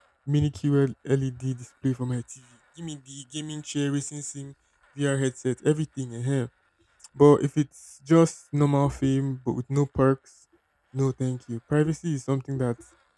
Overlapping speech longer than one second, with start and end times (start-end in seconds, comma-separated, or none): none